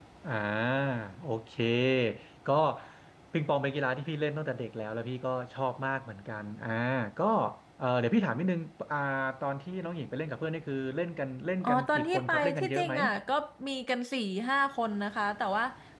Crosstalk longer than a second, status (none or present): present